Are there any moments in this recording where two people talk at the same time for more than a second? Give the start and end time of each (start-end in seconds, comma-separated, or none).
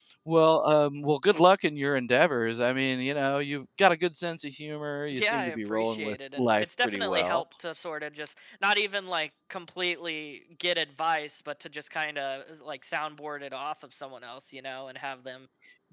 5.2-7.4